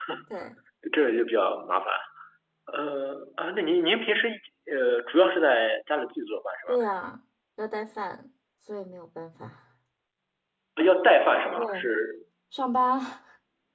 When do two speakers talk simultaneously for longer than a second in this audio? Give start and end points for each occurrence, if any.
none

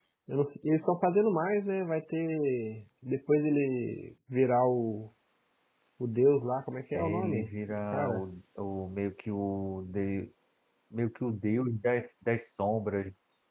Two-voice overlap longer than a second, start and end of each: 6.9-8.2

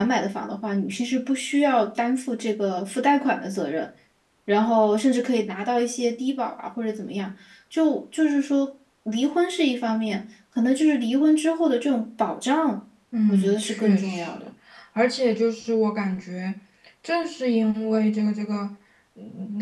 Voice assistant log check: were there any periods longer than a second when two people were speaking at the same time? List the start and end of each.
13.3-14.5

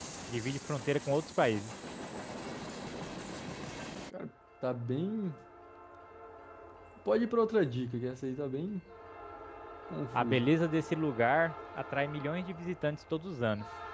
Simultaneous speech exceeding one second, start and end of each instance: none

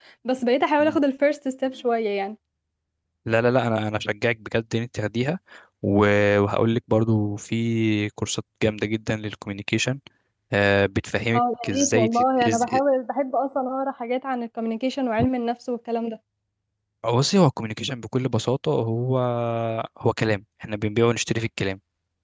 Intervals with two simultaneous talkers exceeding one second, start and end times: 11.3-12.8

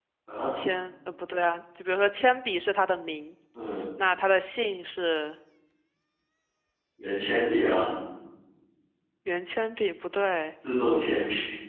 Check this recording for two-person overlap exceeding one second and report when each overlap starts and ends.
none

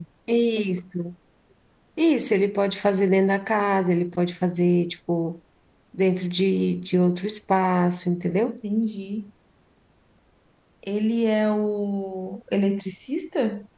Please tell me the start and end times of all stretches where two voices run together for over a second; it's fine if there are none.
none

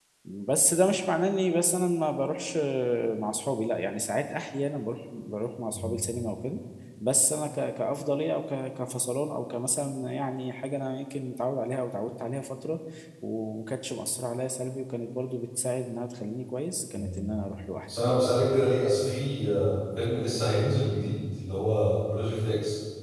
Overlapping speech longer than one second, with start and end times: none

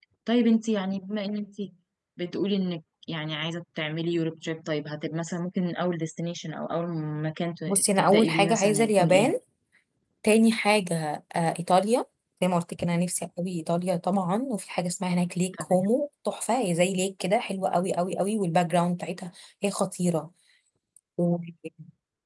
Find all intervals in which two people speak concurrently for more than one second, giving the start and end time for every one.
7.7-9.3

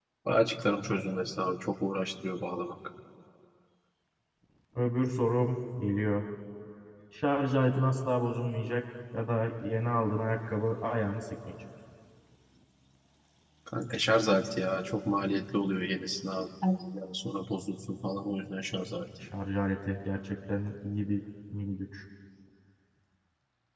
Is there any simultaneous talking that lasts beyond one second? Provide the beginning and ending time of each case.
none

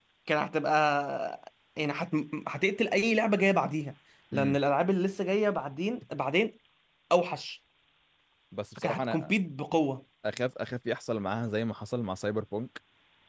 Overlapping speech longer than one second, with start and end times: none

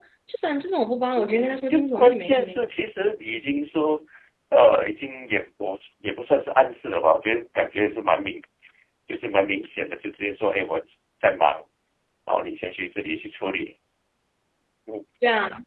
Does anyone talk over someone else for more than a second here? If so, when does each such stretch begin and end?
1.2-2.6

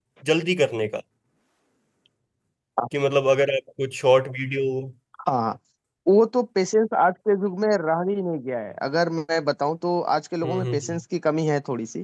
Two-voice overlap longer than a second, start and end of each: none

